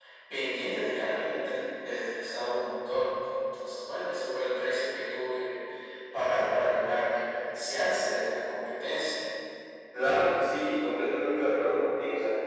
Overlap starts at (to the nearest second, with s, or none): none